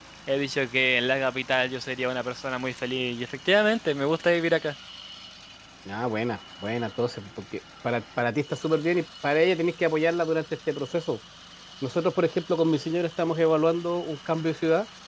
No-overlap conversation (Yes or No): Yes